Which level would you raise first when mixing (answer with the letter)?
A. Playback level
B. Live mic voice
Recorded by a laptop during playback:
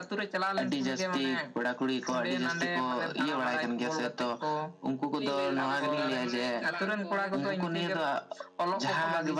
B